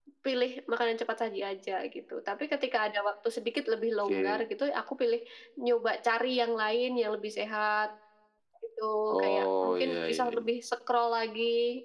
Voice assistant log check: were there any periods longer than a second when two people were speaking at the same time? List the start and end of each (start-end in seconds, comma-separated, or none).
9.2-10.4